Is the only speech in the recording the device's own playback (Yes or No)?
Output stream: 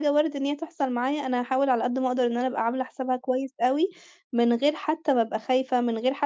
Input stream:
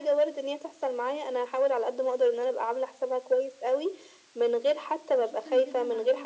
No